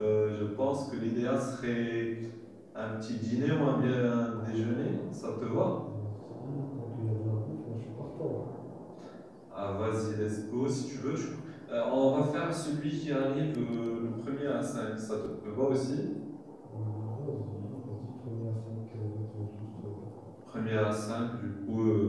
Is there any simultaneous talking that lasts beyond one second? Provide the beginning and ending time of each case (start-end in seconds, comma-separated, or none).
none